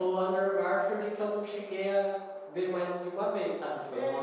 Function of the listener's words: taking over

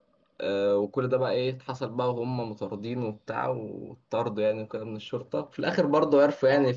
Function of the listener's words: listening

